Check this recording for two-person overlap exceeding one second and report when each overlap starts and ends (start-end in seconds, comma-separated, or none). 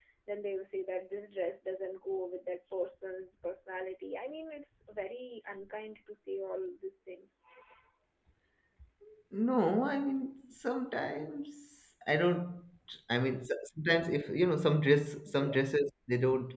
none